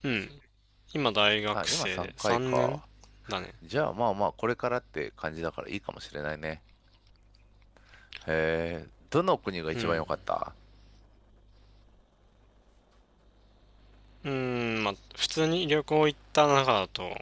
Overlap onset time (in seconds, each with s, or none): 1.5 s